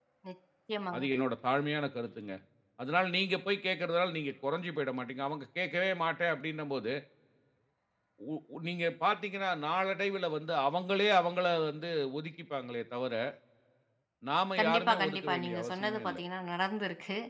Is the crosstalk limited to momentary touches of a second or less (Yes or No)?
No